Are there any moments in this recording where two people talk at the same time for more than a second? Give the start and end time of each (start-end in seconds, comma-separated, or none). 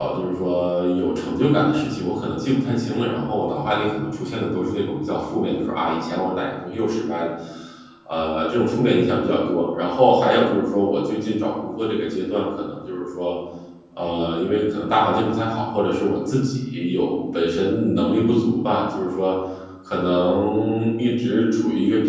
none